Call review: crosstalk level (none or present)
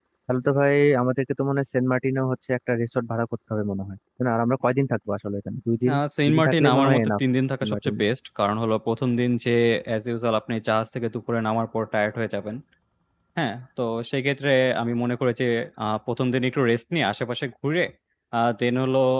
present